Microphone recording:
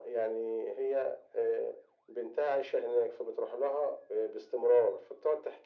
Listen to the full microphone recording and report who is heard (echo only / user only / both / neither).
echo only